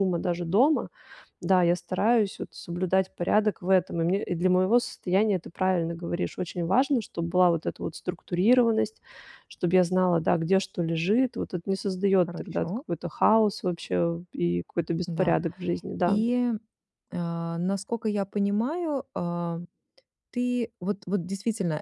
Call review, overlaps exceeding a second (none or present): none